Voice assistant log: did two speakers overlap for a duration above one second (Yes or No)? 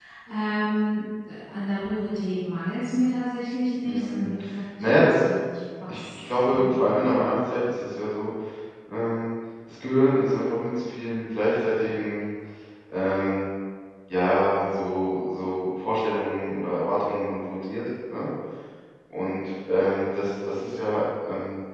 Yes